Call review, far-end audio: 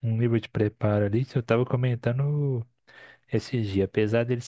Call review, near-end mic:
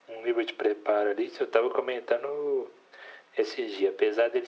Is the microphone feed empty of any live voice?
Yes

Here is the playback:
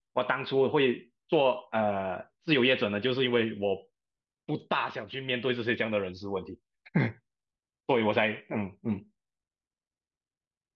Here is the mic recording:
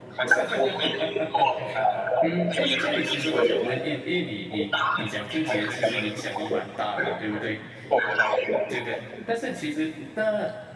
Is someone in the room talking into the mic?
Yes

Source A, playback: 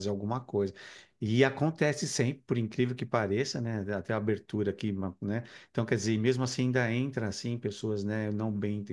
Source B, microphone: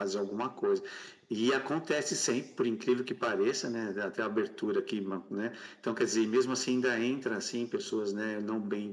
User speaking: No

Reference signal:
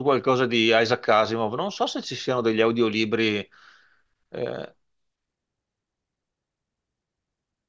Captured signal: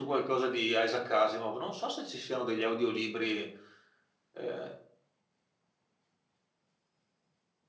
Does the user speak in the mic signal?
No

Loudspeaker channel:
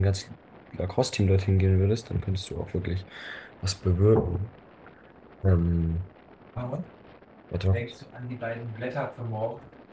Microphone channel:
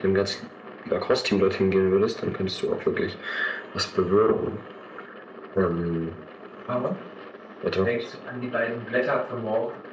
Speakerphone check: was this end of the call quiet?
Yes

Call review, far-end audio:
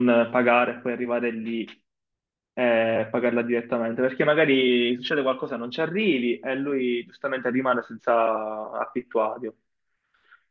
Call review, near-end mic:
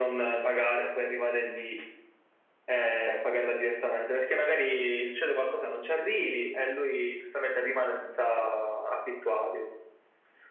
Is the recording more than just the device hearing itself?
No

